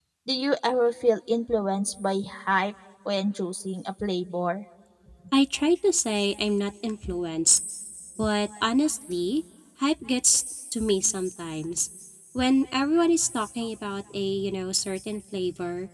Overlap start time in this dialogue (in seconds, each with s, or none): none